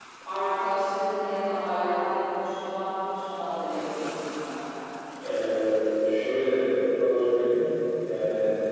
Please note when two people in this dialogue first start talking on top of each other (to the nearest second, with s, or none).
none